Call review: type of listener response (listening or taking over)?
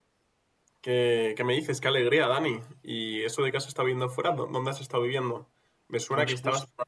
listening